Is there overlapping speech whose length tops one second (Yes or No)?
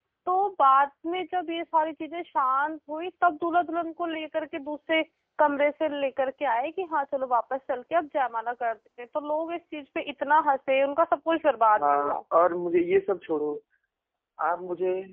No